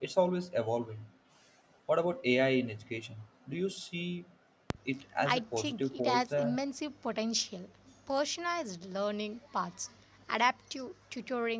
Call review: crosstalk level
present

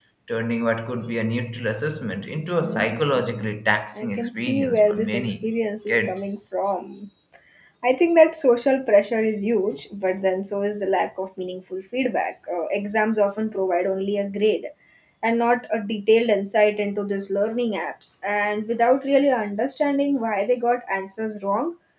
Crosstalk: present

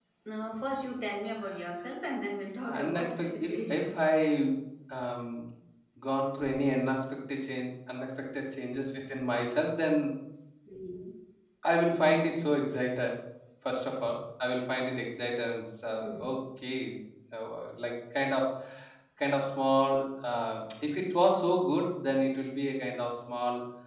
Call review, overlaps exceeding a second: present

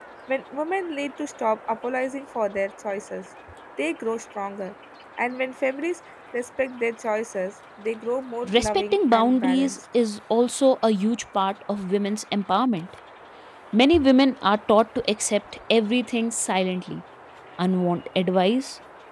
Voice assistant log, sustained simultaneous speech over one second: present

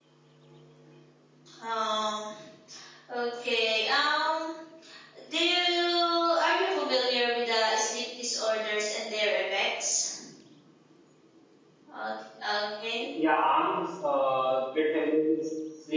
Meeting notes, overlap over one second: none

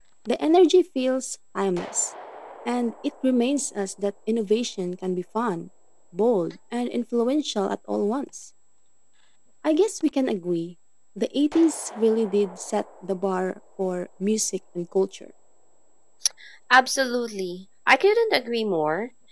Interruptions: none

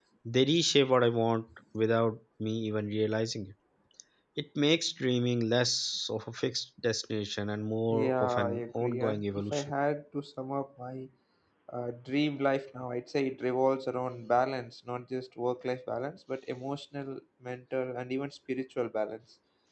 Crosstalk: present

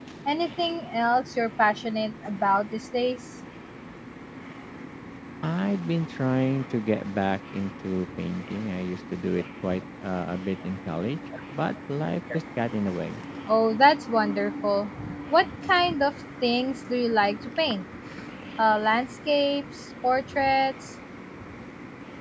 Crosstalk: none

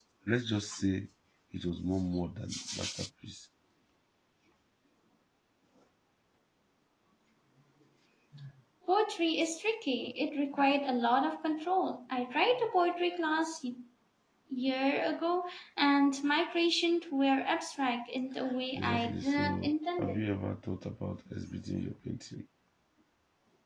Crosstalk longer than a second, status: present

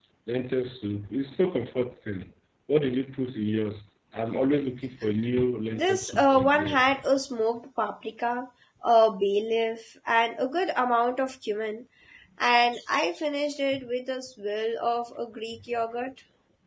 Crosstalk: present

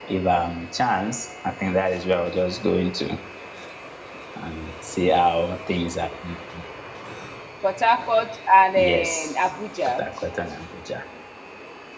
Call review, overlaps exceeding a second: none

